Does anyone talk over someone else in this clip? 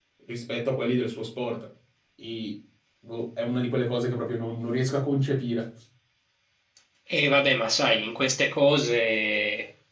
No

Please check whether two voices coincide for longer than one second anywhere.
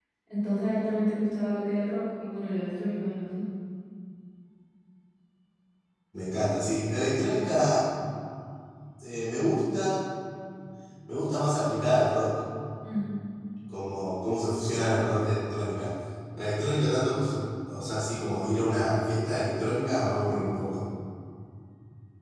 No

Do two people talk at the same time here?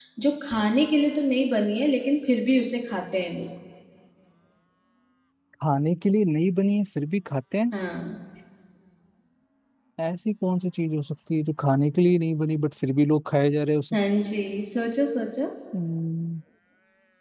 No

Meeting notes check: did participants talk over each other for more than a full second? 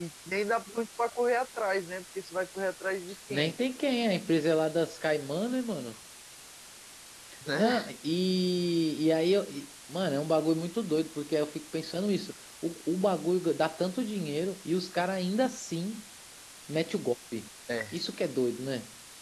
No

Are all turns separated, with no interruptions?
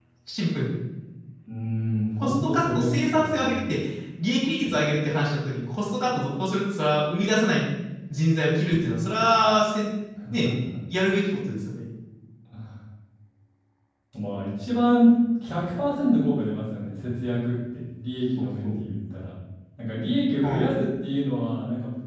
No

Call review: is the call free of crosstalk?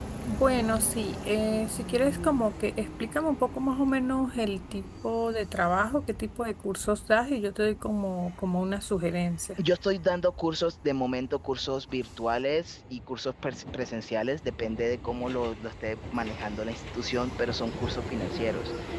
Yes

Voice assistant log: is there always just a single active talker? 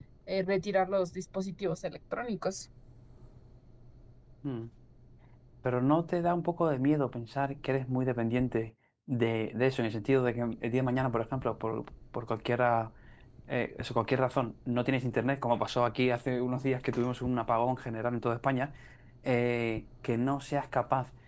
Yes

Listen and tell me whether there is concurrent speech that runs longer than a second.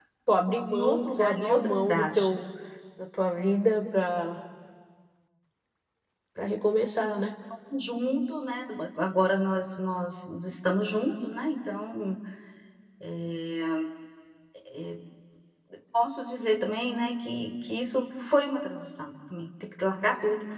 Yes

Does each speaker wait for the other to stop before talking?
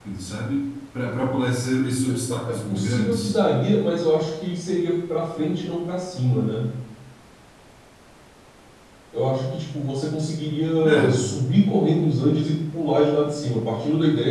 No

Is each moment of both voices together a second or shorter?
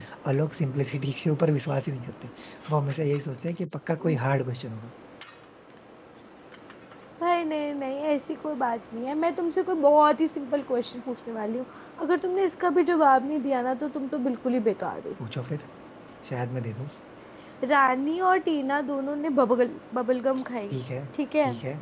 Yes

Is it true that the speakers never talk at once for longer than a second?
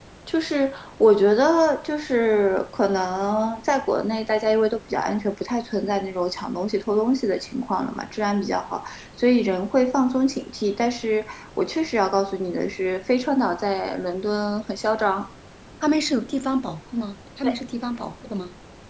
Yes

